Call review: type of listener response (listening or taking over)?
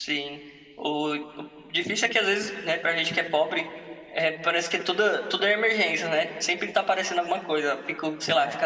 listening